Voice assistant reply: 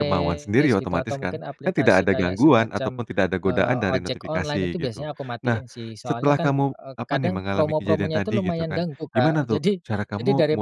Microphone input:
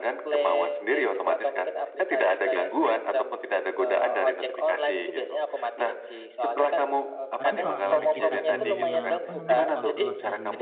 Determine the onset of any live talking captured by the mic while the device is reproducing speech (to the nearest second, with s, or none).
7 s